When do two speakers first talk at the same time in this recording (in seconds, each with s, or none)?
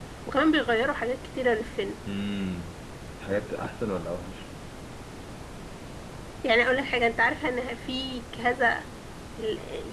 none